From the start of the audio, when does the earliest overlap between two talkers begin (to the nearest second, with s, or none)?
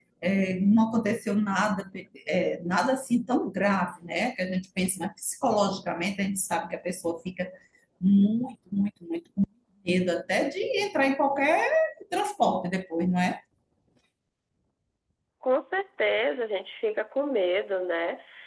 none